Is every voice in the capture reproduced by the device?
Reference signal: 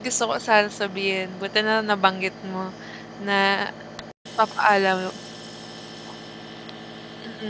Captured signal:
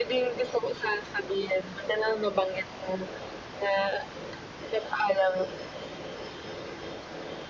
Yes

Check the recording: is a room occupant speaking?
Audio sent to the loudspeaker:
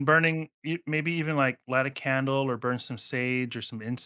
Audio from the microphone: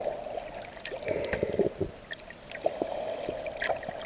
No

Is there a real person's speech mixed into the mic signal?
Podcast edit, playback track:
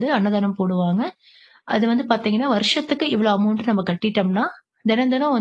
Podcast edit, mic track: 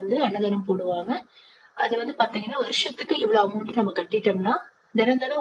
No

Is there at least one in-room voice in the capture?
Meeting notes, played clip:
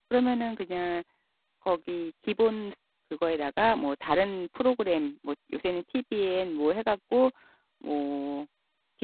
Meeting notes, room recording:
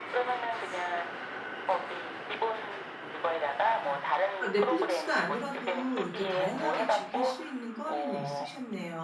Yes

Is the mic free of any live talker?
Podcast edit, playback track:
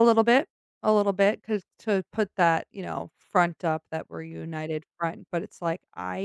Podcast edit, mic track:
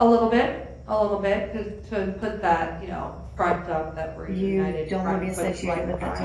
No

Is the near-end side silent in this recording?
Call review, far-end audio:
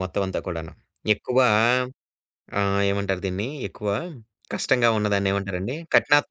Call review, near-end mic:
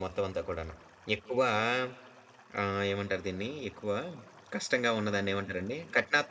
Yes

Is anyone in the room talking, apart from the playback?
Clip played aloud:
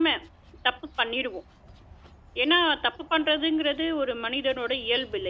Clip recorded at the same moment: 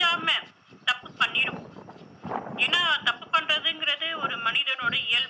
No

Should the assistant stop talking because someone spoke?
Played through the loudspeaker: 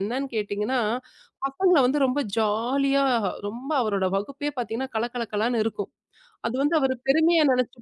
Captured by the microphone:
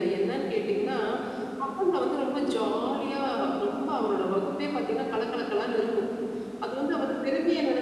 No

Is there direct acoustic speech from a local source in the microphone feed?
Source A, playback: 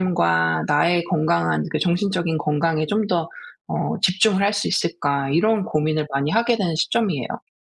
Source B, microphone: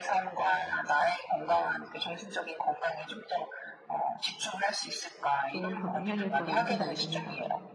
Yes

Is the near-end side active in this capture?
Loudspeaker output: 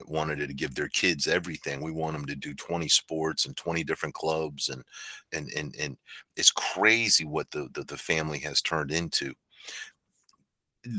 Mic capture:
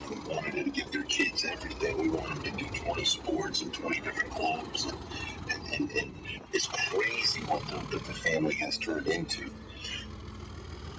No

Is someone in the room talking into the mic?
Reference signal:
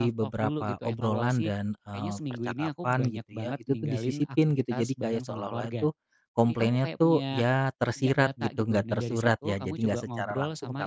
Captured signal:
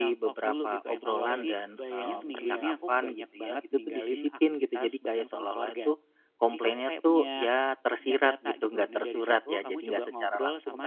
Yes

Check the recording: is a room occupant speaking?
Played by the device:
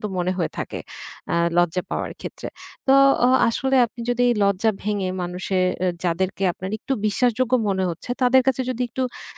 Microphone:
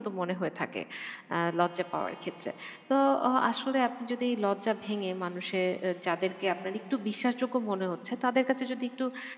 No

